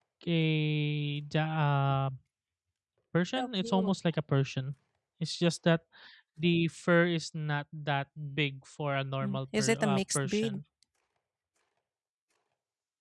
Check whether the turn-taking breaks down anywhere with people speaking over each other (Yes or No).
Yes